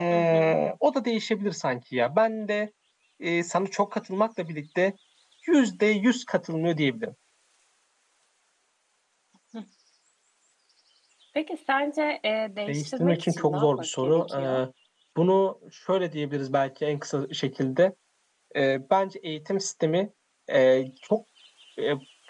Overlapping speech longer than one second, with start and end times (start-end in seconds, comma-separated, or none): 12.7-14.6